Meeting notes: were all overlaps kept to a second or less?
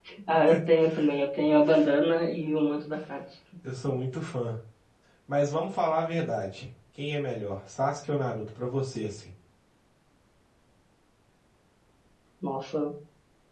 Yes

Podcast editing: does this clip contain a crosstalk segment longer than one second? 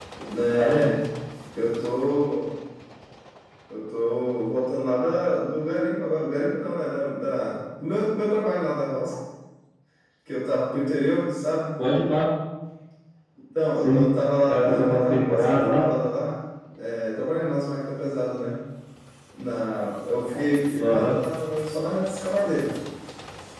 Yes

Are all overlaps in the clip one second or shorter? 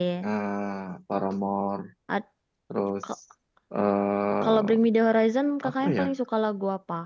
Yes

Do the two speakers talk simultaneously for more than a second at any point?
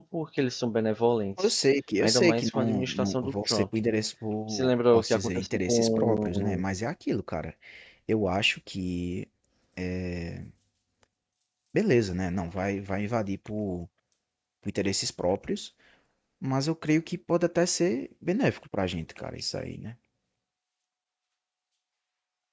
Yes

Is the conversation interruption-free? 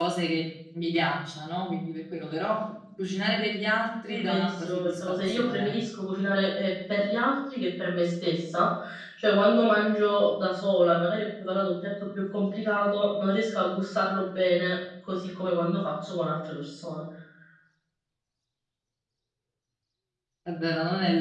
No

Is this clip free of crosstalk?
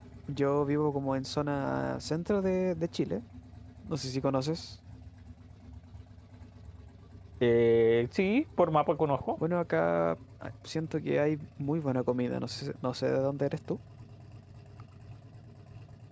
Yes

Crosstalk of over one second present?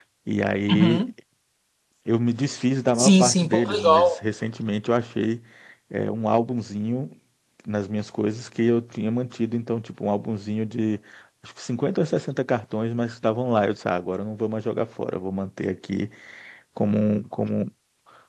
Yes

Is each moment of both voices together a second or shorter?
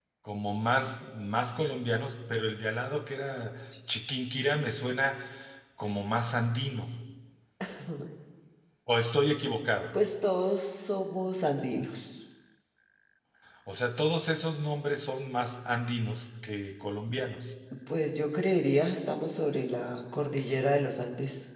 Yes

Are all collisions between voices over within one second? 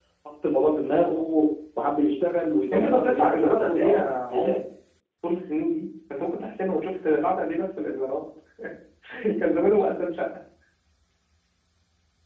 No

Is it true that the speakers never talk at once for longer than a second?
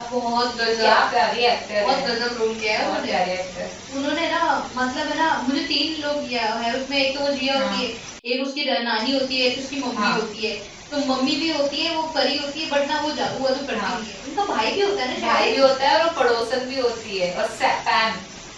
Yes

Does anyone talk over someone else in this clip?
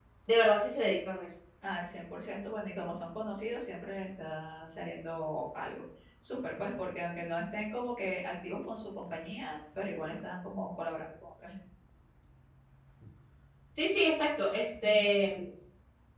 No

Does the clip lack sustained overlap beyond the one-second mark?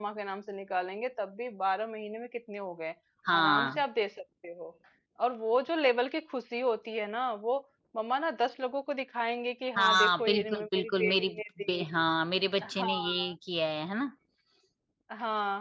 No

